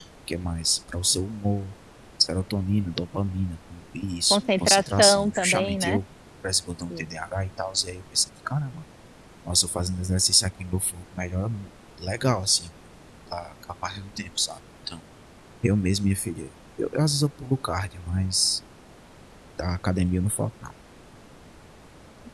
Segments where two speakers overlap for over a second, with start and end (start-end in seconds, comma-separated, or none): 4.3-6.0